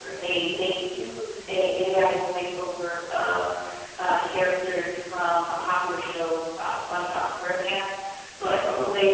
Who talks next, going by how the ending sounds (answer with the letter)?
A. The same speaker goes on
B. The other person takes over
A